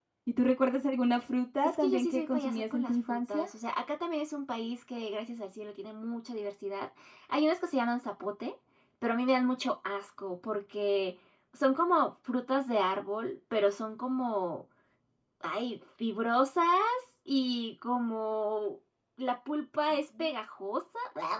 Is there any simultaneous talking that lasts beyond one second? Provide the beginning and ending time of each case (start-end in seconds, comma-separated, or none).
1.6-3.5